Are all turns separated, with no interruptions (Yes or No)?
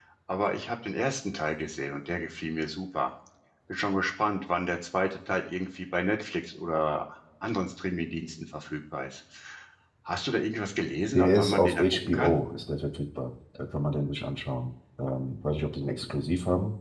No